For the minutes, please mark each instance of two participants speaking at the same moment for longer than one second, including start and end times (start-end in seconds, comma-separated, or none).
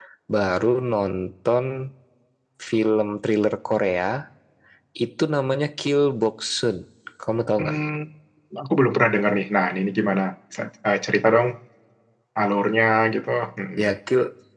none